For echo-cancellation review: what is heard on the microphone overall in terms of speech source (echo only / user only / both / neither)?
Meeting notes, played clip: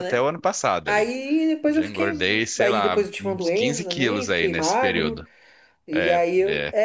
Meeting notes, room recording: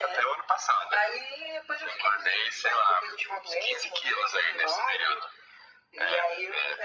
echo only